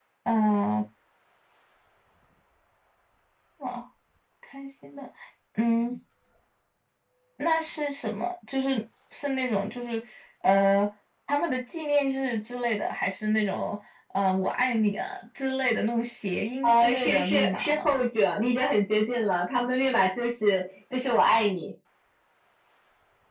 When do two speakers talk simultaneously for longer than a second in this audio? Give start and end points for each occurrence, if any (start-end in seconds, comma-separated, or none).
16.6-18.1